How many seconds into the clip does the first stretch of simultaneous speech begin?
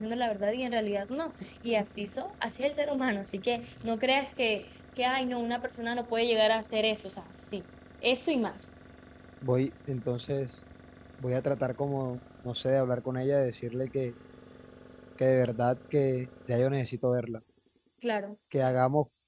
none

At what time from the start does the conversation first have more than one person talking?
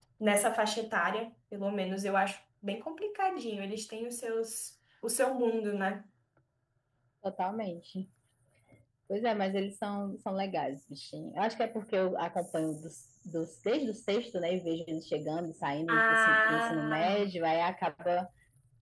16 s

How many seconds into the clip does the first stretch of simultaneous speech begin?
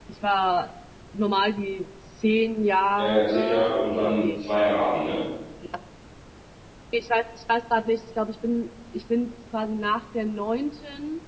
3 s

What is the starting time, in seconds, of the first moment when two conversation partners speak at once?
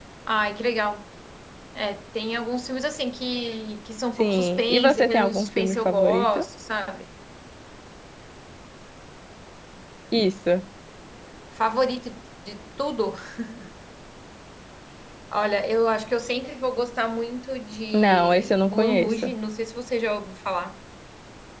4 s

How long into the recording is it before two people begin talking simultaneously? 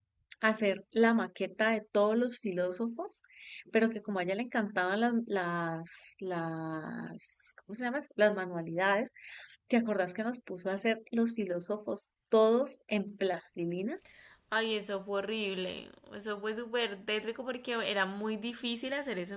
none

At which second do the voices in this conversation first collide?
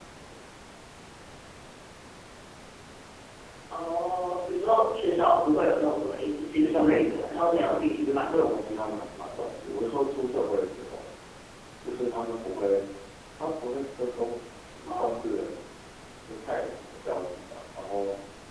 7 s

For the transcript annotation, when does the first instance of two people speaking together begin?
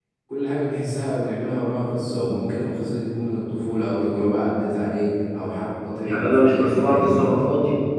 6 s

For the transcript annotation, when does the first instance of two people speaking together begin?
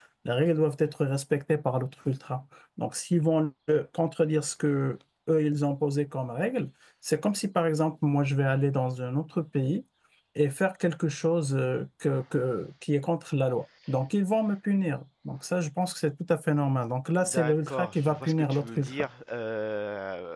17 s

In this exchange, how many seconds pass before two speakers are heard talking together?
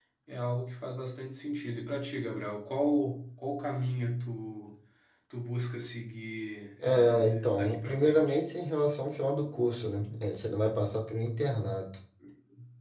7 s

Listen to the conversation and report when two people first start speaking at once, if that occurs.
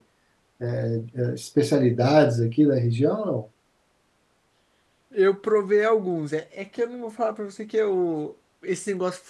none

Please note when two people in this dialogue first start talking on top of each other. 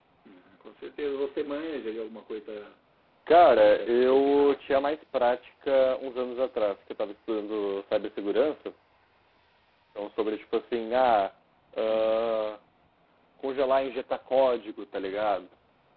4 s

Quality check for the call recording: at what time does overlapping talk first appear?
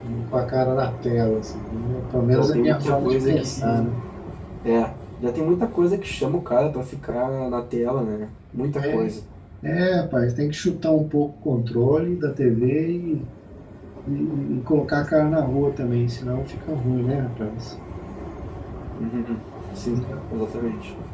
2 s

